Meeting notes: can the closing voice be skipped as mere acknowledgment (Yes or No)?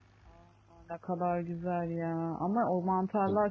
Yes